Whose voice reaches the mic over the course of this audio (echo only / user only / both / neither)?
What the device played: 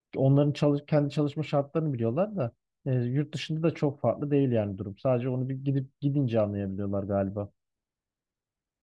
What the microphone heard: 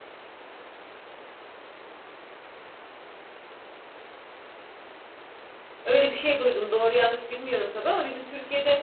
user only